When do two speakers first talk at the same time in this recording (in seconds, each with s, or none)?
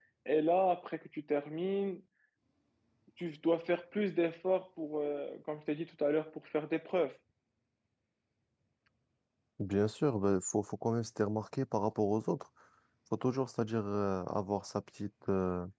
none